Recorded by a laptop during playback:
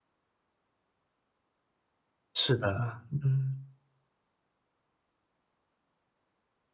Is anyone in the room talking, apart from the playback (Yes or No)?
Yes